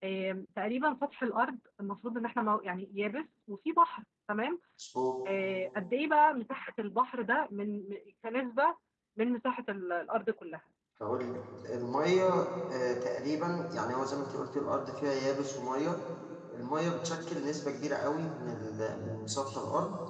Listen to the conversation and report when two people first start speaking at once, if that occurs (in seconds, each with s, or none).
none